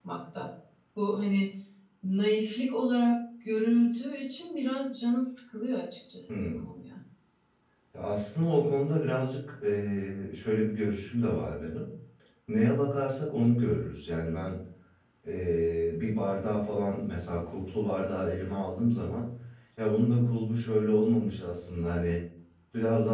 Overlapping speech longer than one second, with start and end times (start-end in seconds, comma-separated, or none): none